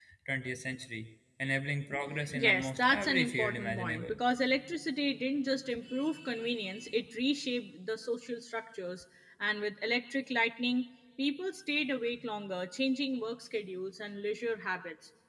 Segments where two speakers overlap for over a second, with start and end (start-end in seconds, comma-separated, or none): 2.3-4.2